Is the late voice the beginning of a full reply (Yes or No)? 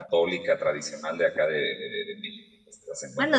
Yes